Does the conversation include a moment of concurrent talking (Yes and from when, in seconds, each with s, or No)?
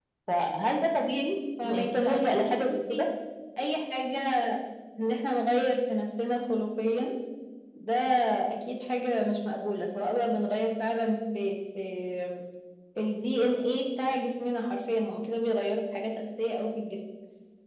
Yes, from 1.6 s